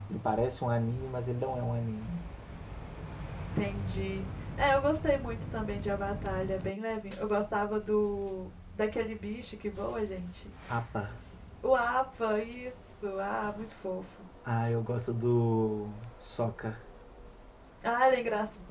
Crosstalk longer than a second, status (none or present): none